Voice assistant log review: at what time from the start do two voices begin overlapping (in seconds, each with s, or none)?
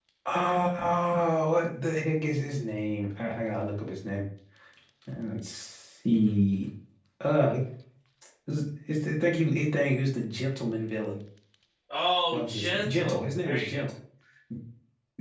12.3 s